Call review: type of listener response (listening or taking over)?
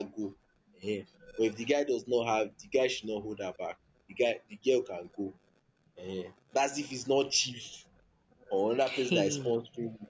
listening